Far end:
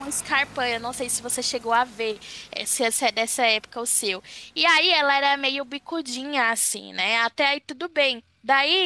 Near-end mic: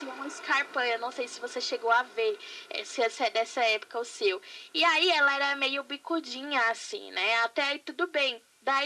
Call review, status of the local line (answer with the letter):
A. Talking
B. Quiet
B